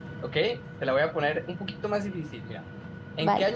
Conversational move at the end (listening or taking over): listening